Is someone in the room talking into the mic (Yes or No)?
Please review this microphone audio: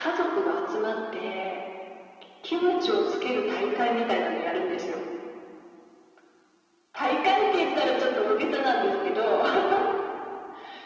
No